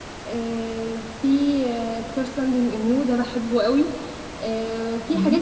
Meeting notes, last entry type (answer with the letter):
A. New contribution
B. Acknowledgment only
B